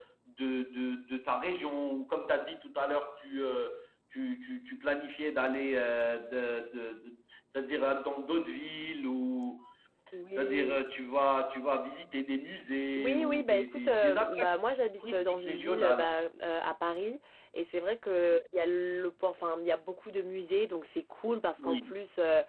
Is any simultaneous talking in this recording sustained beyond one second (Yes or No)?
Yes